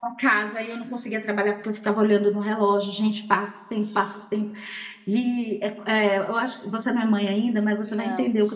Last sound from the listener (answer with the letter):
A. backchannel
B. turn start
A